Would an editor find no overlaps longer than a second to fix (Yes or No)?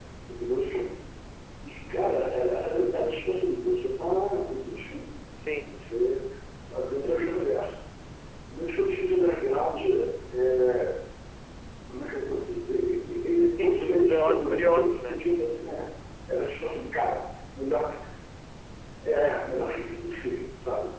No